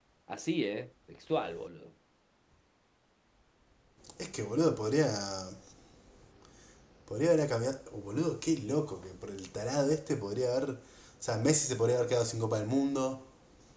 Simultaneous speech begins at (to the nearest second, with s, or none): none